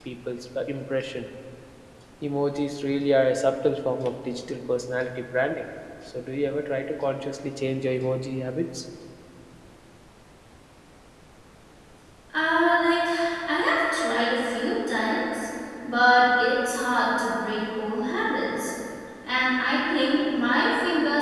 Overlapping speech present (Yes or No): No